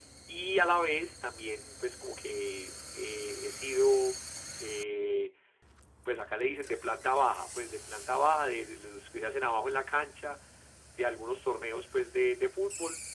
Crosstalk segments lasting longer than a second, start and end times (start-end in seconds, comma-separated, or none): none